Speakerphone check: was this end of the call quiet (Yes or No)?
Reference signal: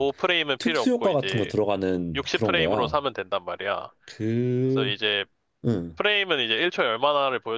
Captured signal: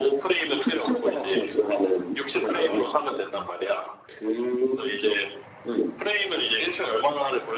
Yes